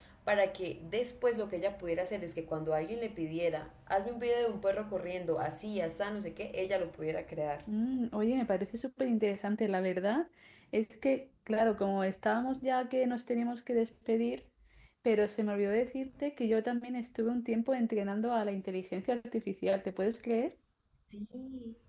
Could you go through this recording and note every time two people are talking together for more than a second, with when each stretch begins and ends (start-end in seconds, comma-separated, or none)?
none